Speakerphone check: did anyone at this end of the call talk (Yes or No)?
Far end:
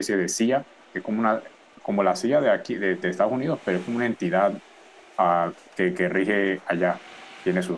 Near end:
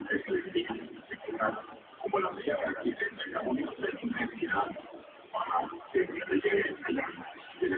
No